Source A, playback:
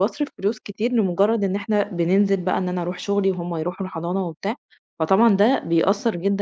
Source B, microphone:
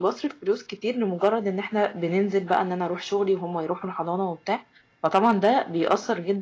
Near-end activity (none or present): none